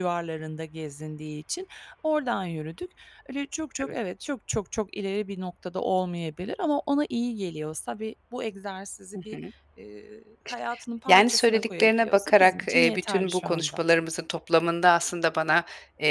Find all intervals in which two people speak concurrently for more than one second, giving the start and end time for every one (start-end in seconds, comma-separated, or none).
11.1-13.8